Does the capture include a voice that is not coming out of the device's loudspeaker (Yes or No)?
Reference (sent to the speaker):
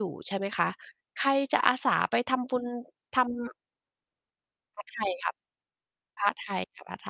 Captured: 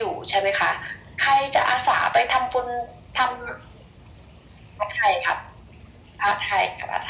No